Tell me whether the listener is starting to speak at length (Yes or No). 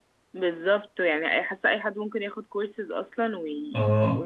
Yes